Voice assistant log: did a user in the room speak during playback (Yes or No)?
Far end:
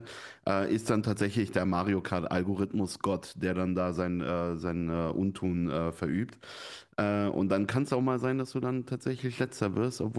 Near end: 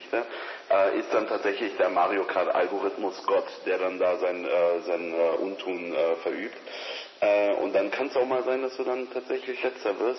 No